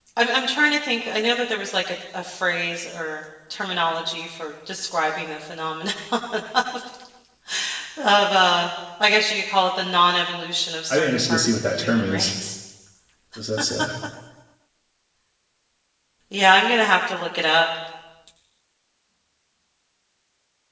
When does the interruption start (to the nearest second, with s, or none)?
11 s